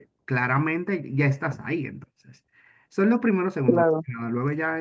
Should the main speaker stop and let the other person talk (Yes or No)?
No